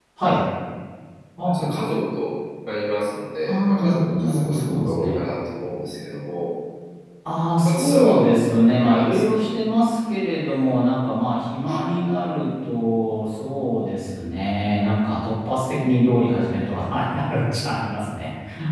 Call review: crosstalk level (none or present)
present